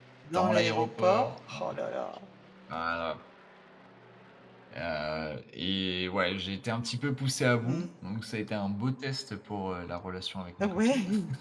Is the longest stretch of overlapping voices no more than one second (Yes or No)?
No